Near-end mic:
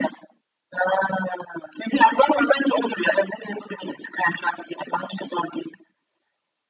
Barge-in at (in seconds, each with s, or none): none